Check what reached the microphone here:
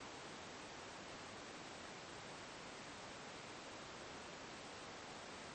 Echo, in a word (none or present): none